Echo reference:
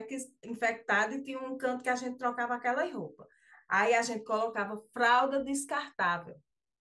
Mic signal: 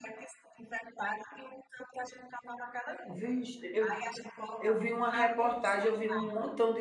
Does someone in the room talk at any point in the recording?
Yes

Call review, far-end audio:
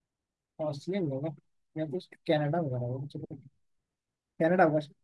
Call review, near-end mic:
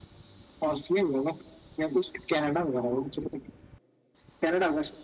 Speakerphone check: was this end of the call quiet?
Yes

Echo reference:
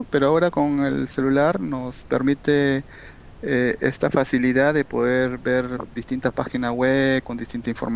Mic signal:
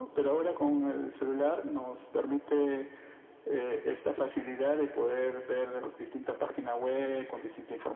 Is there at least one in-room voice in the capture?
No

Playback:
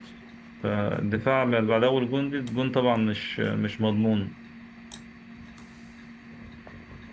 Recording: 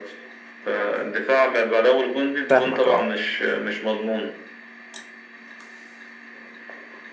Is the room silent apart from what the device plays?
No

